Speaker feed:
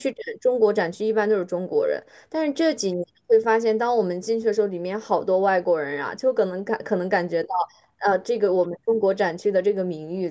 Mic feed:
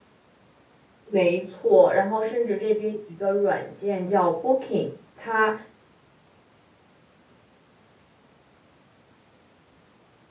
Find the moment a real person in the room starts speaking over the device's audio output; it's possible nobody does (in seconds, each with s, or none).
1.0 s